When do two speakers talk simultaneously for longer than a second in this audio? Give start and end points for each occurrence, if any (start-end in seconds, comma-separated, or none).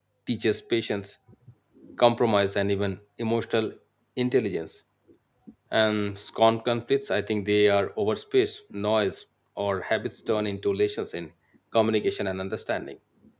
none